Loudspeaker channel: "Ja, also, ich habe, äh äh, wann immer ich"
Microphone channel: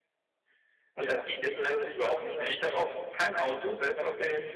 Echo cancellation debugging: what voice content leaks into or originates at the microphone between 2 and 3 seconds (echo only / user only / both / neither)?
both